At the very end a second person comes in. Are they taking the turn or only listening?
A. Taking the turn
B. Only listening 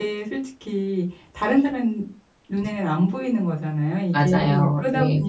B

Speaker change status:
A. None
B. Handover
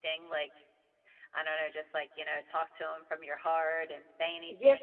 B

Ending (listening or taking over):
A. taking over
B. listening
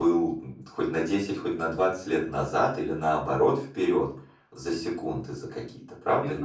A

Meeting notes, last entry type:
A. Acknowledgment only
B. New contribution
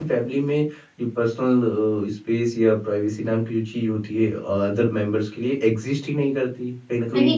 A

